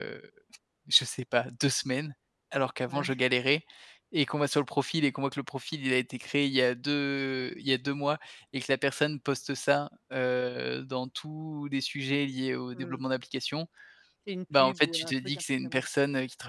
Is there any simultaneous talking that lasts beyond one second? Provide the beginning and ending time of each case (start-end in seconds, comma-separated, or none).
14.6-15.8